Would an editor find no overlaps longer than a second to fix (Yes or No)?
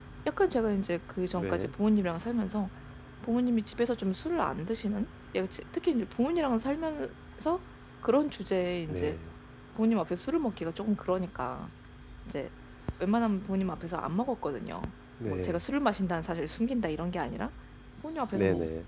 Yes